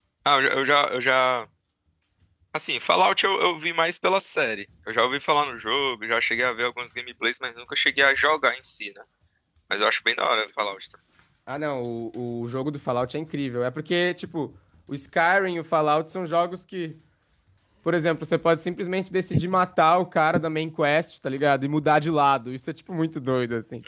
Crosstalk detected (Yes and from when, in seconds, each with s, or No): No